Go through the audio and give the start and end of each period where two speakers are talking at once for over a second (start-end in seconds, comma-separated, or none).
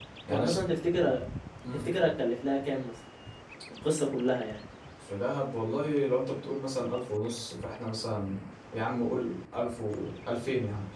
none